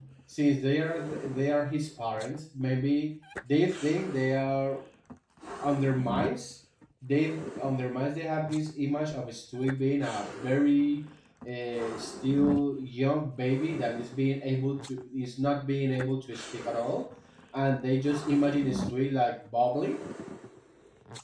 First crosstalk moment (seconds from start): none

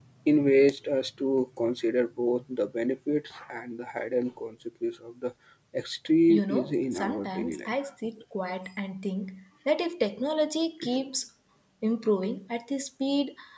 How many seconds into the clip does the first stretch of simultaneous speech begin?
6.3 s

